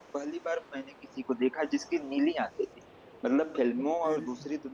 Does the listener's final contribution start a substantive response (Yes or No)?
No